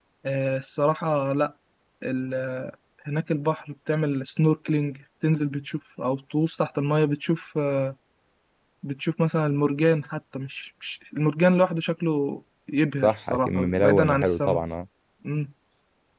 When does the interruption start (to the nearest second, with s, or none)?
13 s